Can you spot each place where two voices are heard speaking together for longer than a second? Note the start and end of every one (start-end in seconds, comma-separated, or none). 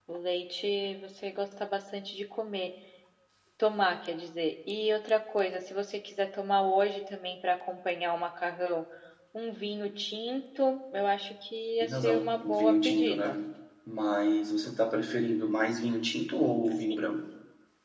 11.8-13.2